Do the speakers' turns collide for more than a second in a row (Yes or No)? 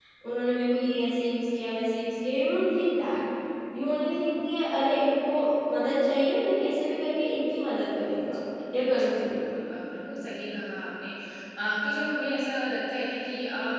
No